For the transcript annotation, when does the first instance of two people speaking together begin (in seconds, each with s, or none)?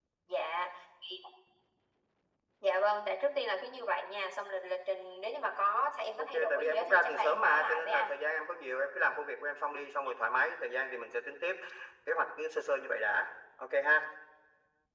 6.2 s